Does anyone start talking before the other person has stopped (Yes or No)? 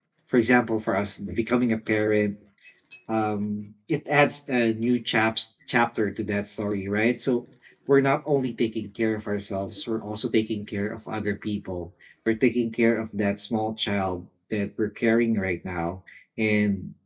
No